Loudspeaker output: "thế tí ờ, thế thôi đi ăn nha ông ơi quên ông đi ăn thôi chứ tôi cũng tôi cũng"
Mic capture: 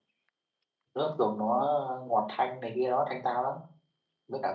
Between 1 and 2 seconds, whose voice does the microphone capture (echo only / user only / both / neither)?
user only